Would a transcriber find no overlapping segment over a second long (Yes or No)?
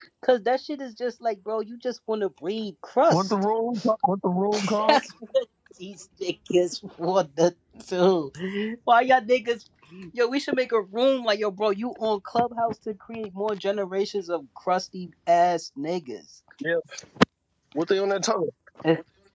Yes